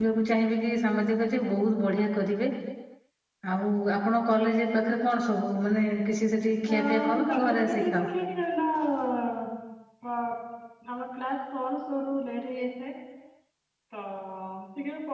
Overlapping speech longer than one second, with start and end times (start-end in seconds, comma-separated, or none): 6.7-8.1